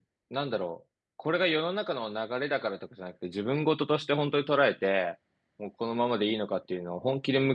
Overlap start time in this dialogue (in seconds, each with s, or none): none